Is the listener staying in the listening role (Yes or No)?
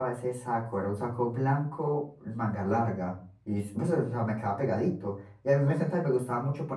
Yes